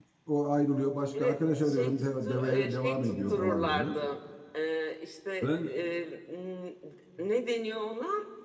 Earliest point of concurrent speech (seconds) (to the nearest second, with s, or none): 1 s